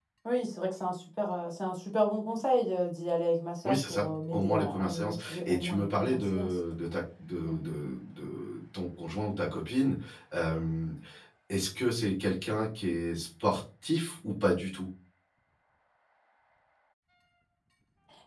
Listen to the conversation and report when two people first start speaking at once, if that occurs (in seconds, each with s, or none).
3.6 s